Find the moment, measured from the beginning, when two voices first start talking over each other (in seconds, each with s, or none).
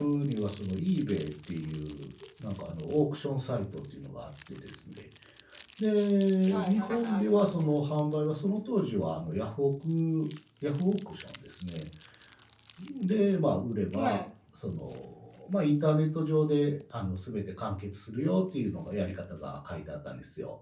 6.5 s